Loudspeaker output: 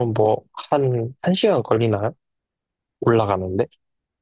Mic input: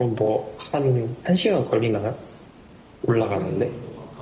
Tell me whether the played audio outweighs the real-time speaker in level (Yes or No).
Yes